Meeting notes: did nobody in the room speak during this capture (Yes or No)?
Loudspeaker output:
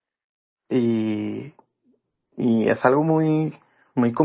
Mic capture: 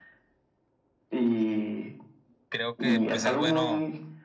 No